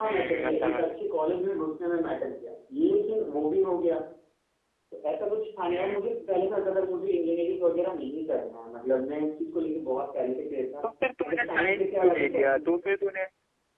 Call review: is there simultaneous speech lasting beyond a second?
Yes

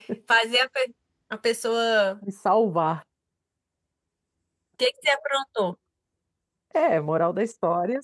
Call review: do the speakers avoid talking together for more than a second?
Yes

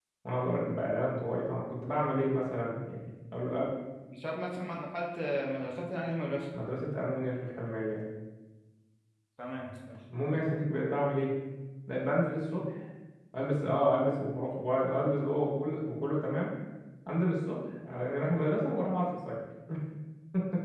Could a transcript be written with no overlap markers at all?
Yes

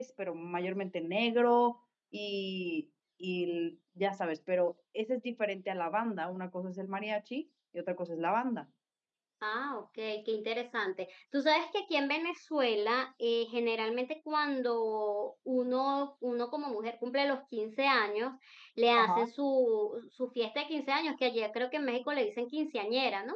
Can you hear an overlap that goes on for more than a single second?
No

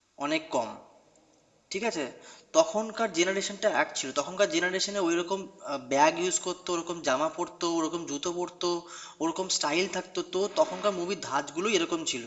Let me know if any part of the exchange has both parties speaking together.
No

